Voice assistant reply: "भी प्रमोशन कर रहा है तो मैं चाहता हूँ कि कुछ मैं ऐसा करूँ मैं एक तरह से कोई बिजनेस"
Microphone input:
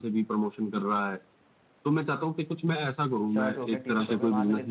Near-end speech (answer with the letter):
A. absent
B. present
B